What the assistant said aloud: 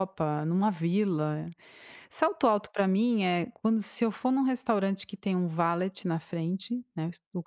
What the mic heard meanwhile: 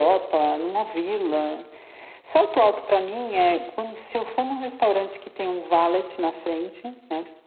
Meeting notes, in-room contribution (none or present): none